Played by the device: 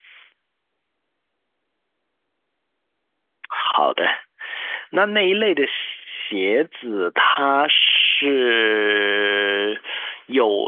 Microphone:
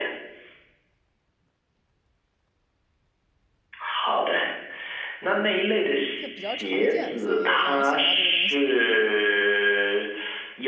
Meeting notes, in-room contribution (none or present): present